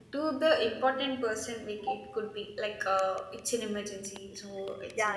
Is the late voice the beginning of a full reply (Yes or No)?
Yes